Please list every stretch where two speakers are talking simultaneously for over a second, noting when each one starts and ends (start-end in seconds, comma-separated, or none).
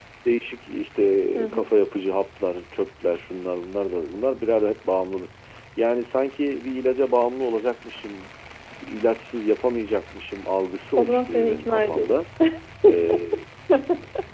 11.0-12.2